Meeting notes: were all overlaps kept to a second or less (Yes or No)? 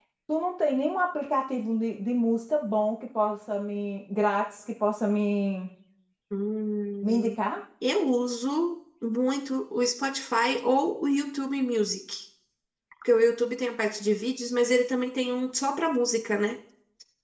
Yes